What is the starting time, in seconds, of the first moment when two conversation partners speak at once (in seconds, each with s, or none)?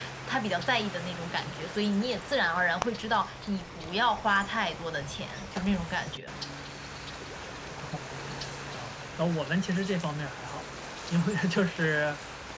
none